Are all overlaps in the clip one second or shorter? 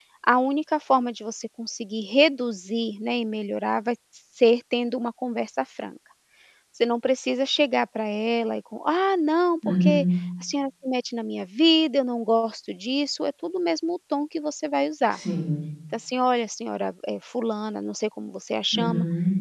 Yes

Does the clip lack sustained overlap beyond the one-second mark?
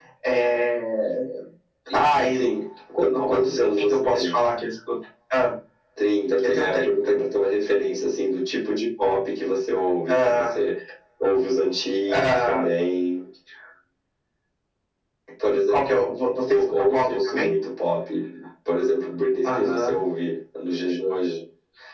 No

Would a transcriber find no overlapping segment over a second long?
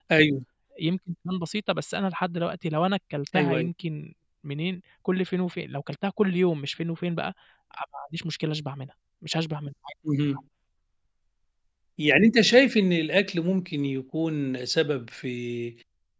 Yes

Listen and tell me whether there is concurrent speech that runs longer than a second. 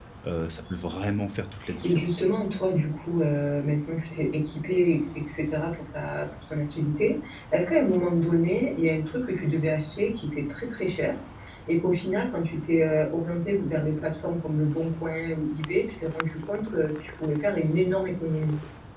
No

